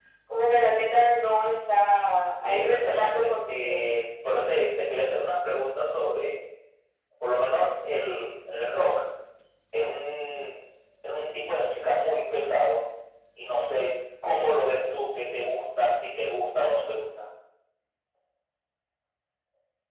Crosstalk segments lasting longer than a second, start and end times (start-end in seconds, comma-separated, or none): 2.4-3.8